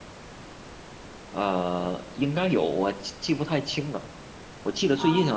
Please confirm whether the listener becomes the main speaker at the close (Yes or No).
No